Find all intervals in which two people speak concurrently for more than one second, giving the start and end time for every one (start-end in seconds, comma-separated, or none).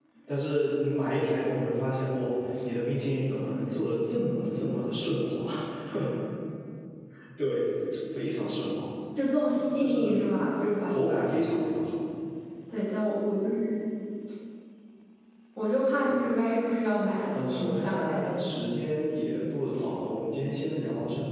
17.3-18.6